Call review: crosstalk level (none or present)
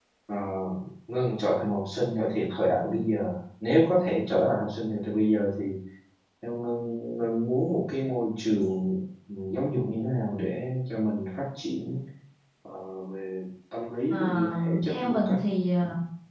present